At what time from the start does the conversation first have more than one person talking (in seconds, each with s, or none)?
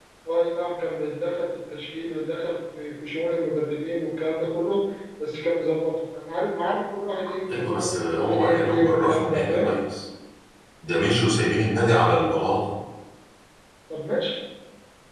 7.5 s